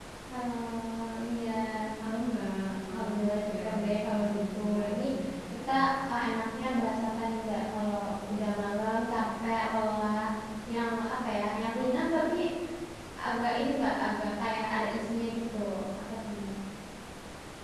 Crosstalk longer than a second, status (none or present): present